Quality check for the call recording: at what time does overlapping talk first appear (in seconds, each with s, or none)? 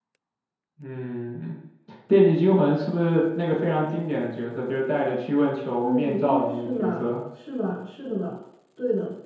5.8 s